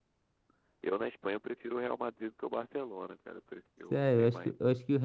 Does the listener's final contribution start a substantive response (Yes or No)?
Yes